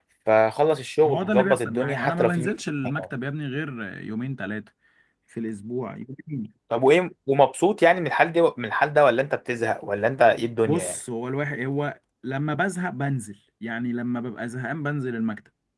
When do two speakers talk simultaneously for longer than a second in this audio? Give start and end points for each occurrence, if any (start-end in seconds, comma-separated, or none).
1.0-2.5